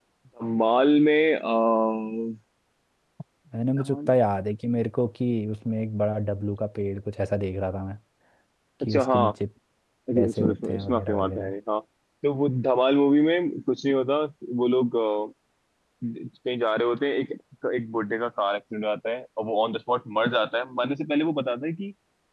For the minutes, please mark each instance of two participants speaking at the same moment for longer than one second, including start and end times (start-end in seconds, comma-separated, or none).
10.2-11.5